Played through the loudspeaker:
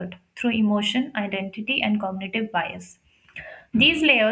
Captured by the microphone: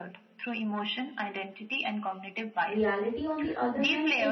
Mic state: both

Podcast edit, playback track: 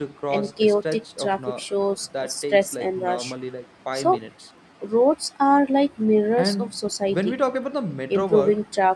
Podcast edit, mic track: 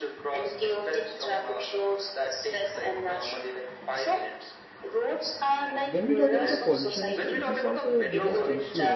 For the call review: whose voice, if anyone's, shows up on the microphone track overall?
both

